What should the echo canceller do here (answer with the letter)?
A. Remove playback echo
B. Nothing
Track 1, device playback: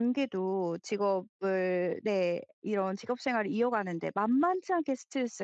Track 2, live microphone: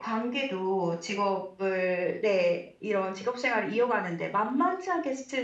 A